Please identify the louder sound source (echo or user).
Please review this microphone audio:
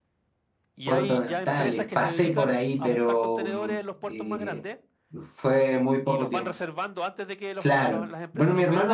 user